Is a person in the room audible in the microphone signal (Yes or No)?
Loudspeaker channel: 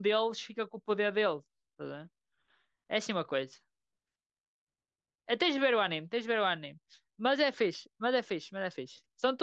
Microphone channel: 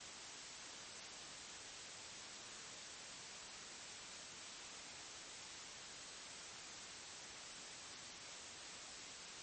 No